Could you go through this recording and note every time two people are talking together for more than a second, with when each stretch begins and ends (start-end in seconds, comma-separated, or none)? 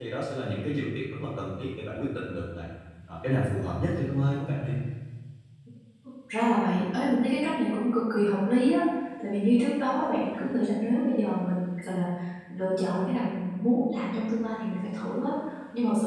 none